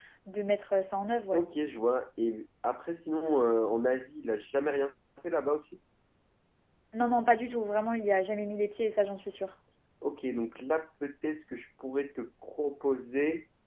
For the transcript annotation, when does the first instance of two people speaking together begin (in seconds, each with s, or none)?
none